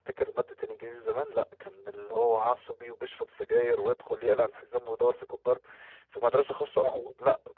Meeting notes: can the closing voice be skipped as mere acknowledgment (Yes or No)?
Yes